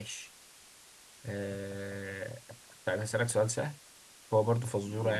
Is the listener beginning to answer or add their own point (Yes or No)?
No